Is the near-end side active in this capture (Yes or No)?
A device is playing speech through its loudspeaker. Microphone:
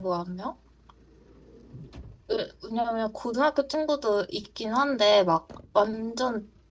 Yes